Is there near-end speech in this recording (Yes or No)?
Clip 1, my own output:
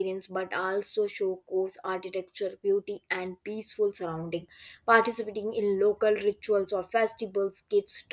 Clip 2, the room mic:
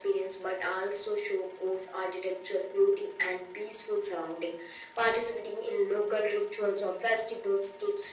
No